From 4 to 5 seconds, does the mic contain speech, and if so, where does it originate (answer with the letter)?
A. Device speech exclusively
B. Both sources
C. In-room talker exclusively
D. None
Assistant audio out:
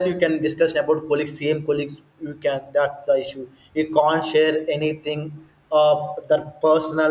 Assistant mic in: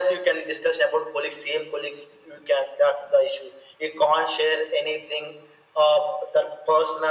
A